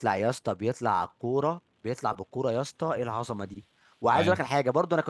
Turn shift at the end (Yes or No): No